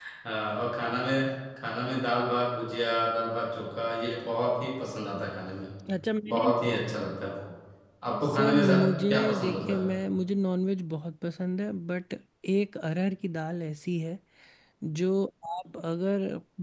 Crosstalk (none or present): present